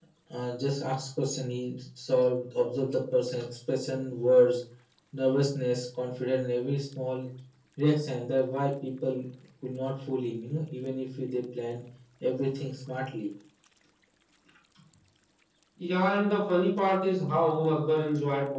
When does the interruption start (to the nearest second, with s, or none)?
none